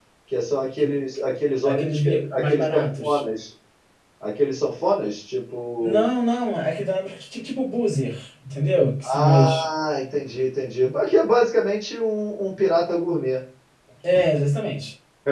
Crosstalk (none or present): present